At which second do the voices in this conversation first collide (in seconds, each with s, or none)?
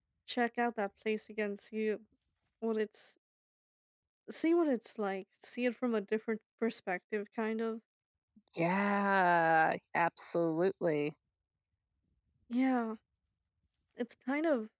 none